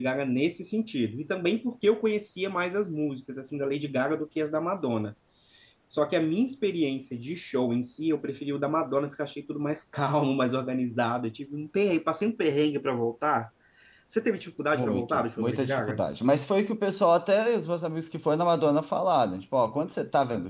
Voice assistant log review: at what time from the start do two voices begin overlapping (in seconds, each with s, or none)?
14.7 s